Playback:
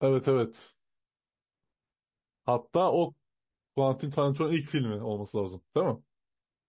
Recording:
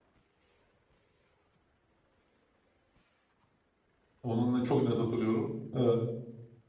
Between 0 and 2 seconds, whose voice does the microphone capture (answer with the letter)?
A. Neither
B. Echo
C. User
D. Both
A